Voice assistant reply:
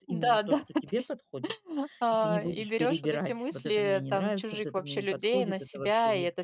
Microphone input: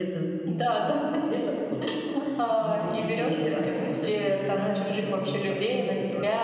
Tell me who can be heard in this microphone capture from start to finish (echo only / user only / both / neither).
echo only